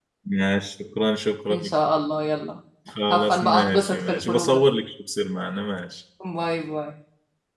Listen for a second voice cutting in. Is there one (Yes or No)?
Yes